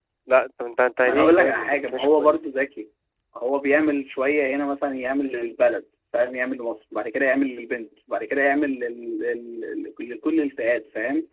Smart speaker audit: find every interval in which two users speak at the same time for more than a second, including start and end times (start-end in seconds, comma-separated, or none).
1.0-2.5